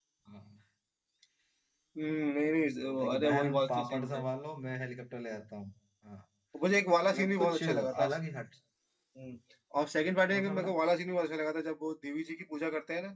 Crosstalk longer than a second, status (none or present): present